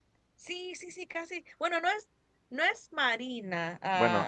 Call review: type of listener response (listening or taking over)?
taking over